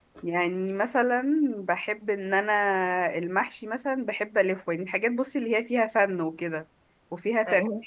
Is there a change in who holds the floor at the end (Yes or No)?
No